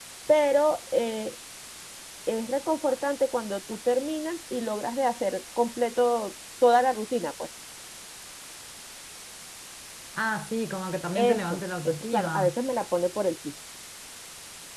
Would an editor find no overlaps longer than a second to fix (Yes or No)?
No